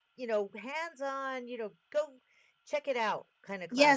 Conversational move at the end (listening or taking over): taking over